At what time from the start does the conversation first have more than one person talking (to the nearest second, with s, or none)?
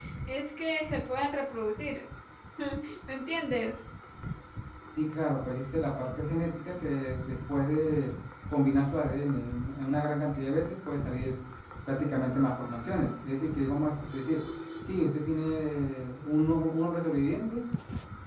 none